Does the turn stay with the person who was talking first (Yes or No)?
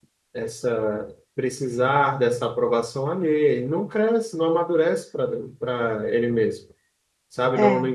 Yes